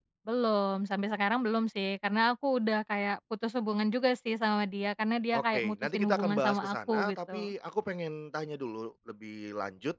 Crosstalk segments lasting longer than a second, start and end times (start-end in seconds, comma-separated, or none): 5.3-7.5